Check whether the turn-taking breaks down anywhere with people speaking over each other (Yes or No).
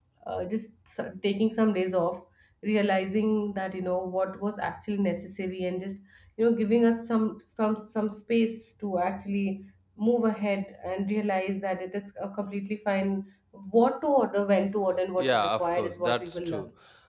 Yes